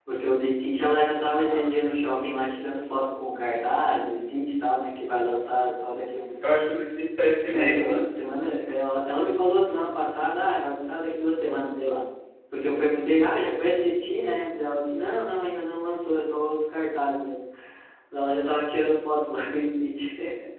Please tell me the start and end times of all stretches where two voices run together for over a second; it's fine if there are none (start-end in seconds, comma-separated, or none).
none